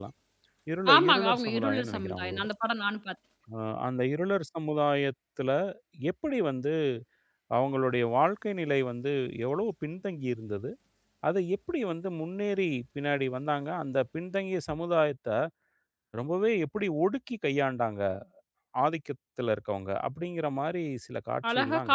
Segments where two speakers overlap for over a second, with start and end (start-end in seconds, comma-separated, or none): 0.9-2.5